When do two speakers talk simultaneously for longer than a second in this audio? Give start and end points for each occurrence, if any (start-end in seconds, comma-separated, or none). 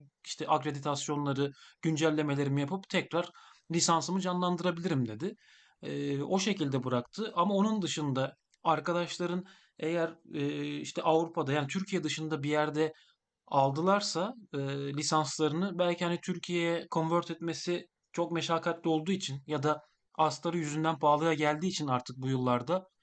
none